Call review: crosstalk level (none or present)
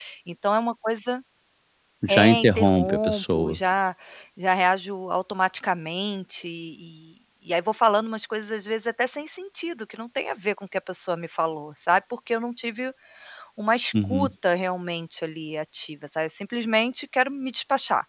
present